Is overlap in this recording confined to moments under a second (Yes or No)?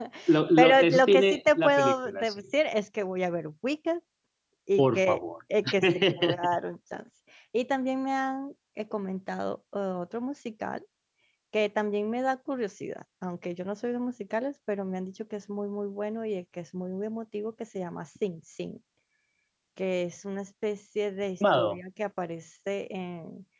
No